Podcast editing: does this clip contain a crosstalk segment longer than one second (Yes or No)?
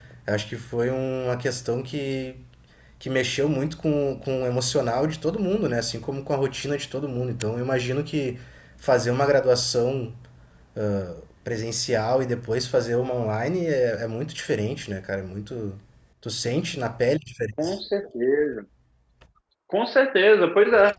No